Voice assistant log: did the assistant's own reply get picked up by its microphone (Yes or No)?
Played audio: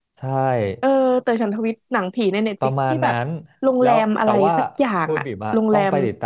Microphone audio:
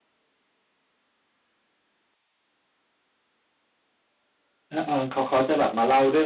No